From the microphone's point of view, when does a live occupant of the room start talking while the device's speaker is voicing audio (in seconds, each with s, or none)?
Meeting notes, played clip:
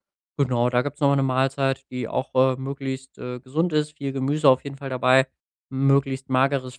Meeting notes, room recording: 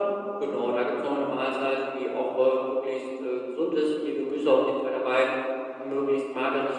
none